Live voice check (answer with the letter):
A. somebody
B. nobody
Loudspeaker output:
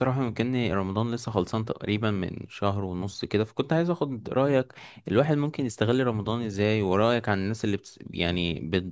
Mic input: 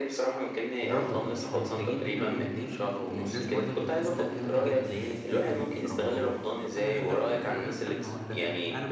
A